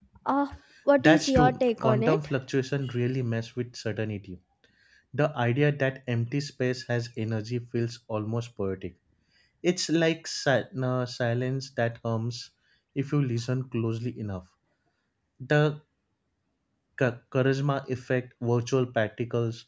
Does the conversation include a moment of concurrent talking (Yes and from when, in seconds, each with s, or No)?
Yes, from 1.0 s